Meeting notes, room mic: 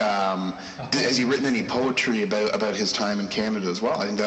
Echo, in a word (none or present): present